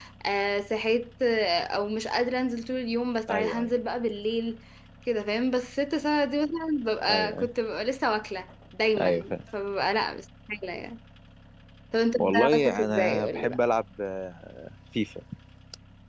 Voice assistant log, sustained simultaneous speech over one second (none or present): present